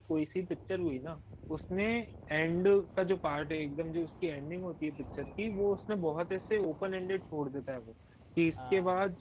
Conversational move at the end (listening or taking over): listening